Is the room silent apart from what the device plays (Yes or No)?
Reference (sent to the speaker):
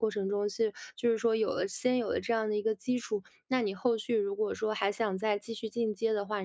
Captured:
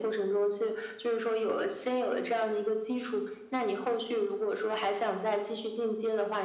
Yes